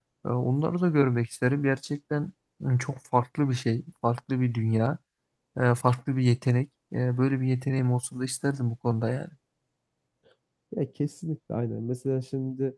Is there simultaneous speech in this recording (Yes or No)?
No